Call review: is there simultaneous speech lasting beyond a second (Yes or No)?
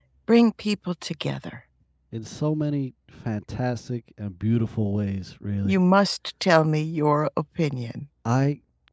No